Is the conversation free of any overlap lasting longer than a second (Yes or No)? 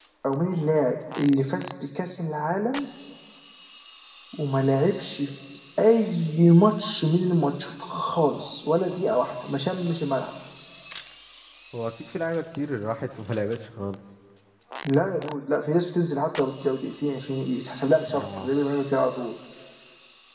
Yes